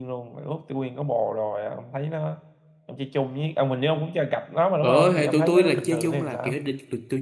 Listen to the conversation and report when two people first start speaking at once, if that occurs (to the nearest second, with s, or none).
5 s